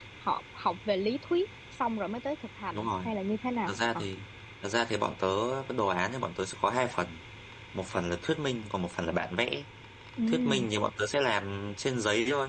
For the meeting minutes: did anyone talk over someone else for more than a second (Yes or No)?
No